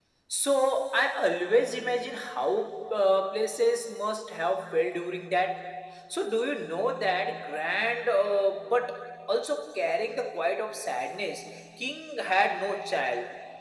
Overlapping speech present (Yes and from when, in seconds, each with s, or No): No